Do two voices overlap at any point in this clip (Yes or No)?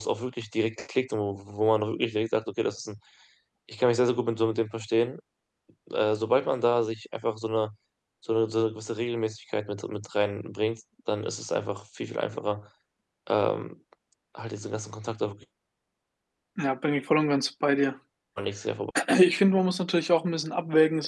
No